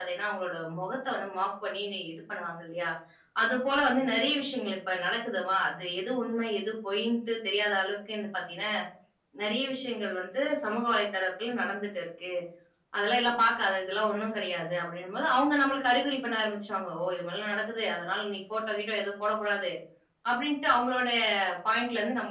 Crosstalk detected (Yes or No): No